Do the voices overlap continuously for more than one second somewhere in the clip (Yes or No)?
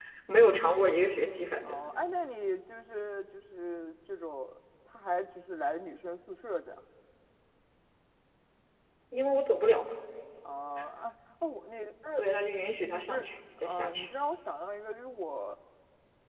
No